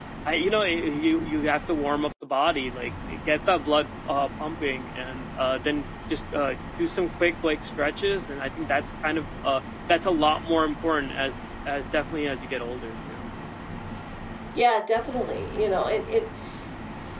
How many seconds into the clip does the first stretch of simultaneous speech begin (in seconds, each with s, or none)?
none